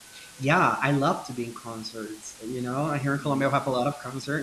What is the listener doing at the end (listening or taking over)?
listening